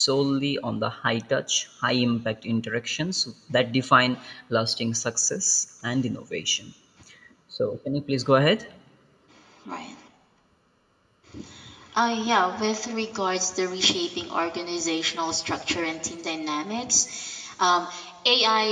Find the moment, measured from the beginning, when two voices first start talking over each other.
none

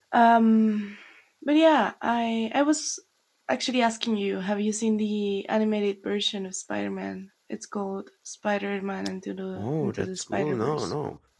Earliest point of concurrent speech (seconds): 9.6 s

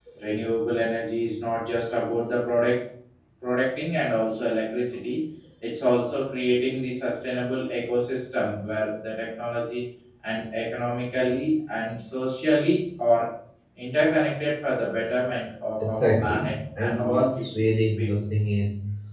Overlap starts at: 15.8 s

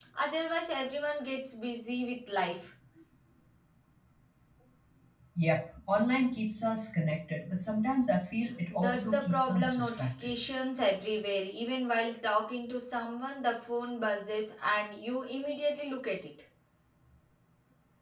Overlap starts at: 8.7 s

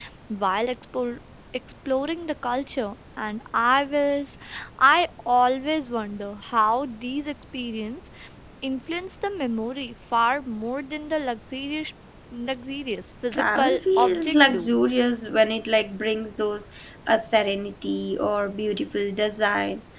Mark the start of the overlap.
13.3 s

